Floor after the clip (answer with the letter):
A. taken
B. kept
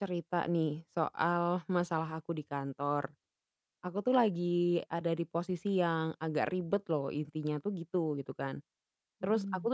B